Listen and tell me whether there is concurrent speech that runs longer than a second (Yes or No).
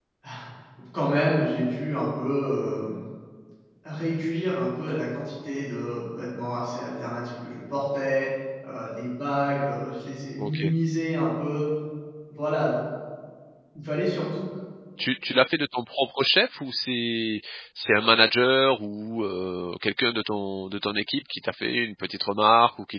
No